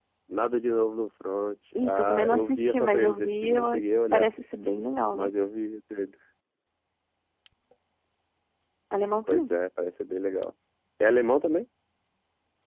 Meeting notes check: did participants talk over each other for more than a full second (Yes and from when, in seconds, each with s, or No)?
Yes, from 1.8 s